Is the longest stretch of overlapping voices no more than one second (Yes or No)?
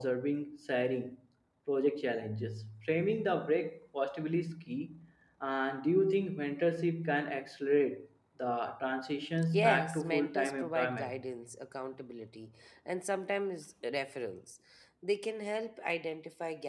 No